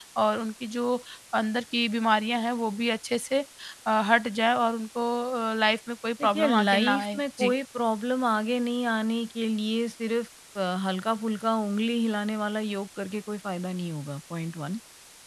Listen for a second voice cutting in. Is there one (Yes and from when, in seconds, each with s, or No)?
Yes, from 6.2 s